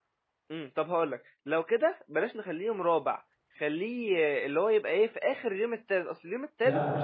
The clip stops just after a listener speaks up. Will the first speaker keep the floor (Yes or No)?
No